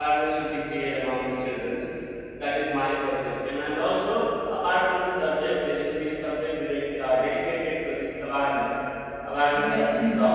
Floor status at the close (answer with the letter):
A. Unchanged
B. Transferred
A